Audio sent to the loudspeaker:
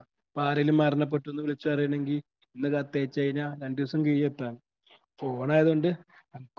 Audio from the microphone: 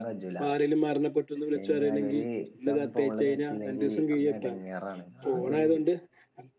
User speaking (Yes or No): Yes